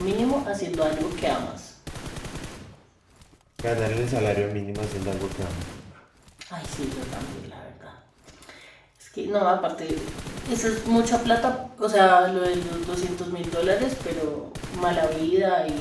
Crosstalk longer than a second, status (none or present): none